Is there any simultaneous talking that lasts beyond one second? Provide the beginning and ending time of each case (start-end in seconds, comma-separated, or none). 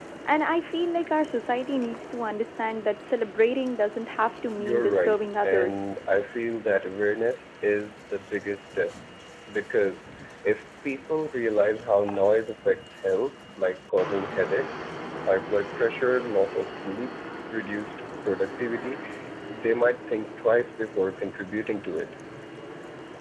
4.6-5.8